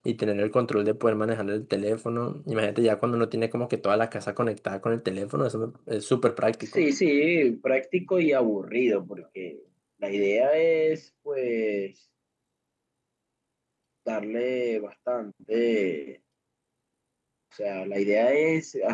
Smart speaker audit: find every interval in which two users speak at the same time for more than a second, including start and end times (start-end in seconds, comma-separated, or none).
none